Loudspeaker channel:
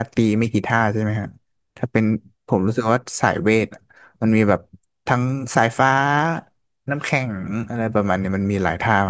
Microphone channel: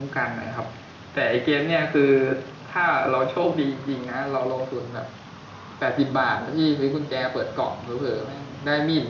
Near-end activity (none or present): present